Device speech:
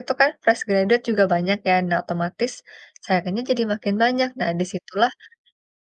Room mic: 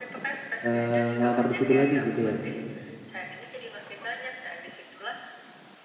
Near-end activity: present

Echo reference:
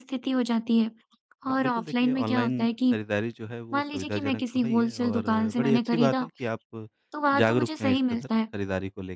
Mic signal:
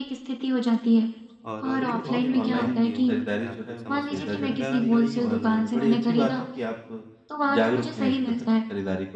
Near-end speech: present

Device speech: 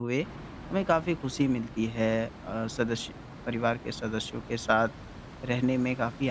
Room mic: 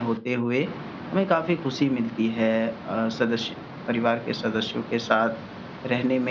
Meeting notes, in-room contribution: none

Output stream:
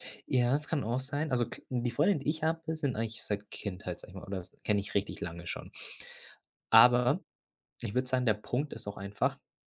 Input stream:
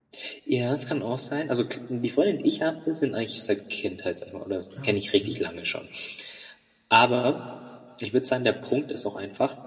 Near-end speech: present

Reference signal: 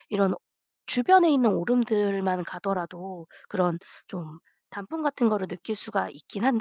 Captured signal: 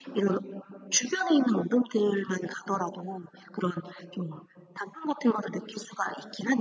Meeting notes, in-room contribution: none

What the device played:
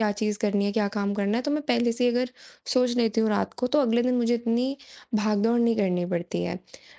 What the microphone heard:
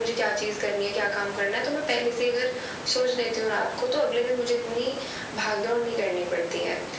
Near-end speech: none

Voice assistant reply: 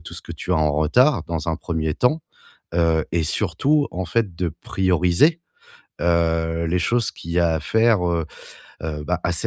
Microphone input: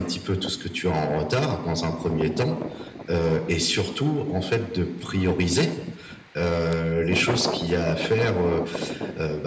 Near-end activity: none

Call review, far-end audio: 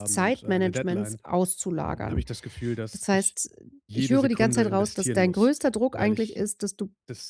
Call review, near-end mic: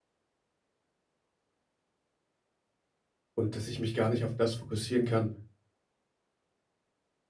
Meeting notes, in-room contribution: present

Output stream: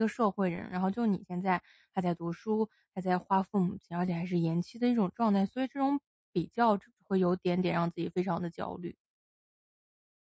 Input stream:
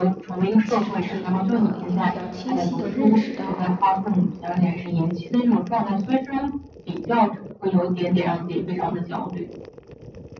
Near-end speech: present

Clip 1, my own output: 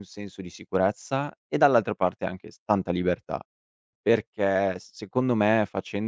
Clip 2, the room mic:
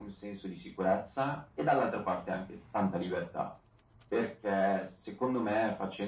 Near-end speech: none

